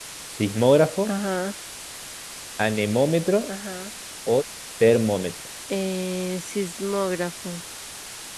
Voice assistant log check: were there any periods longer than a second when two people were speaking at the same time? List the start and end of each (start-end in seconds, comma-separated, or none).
none